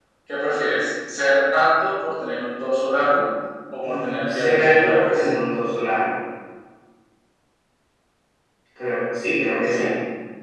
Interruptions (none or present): present